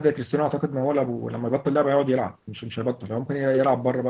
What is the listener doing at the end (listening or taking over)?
listening